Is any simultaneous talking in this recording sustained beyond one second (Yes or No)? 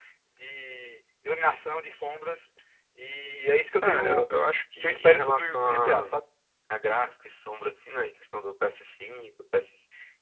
Yes